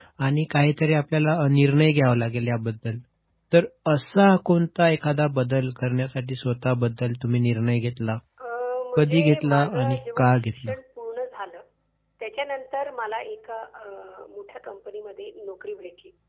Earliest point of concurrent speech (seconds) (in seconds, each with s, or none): 9.0 s